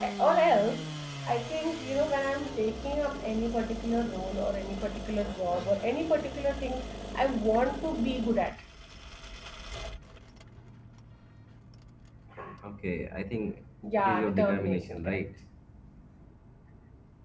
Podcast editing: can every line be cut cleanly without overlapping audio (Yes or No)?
No